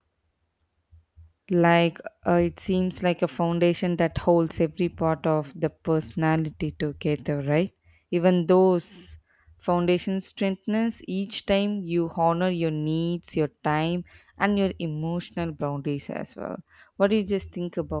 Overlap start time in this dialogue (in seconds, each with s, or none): none